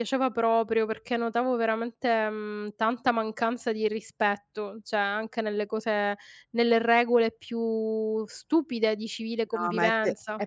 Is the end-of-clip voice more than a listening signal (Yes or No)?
Yes